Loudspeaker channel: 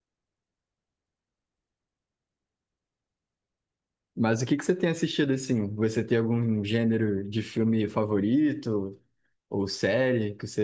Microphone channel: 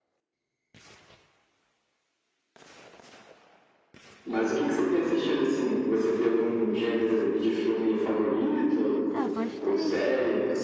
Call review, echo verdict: present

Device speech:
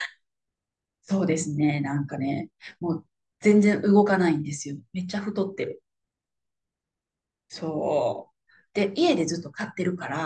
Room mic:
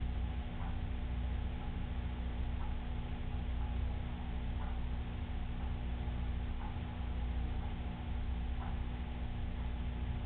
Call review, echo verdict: none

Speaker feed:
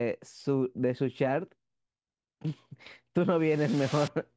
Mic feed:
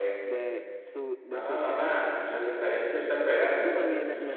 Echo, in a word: present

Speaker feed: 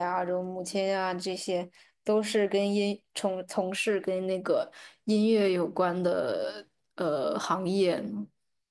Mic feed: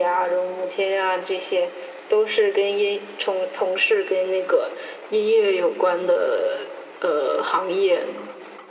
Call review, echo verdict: present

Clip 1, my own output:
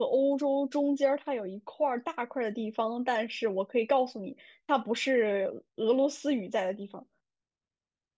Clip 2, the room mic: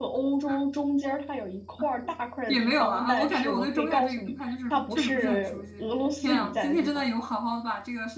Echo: present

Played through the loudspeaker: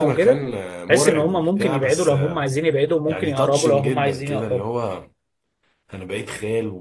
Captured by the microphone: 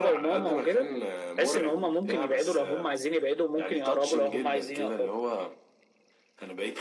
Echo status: present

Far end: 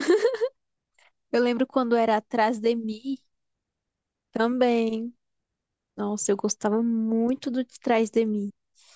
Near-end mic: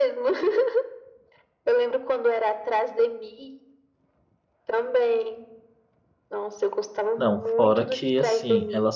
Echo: present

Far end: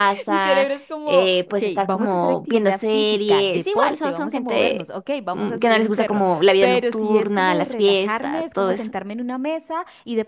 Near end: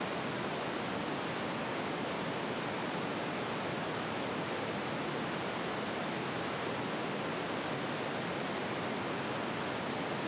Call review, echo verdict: none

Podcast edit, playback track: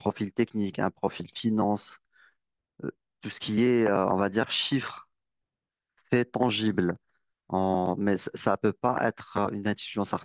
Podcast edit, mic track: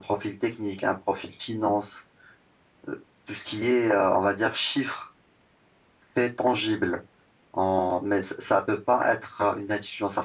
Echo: present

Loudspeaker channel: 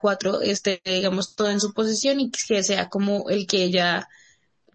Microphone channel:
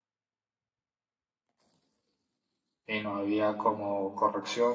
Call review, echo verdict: none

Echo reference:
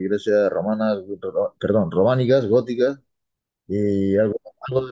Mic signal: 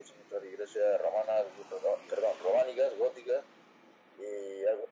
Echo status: present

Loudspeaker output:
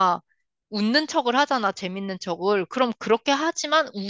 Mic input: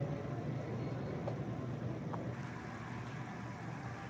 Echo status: none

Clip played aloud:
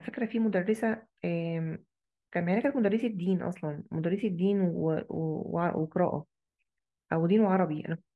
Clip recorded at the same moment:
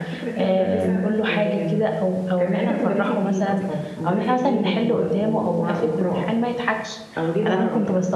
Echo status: present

